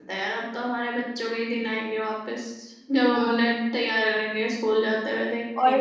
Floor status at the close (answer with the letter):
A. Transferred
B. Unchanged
A